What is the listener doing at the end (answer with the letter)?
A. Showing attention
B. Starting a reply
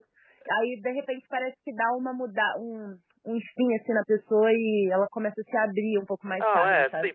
B